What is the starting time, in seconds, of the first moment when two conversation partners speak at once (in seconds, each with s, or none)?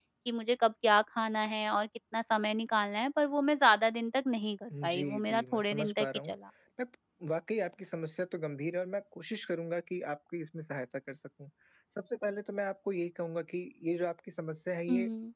4.7 s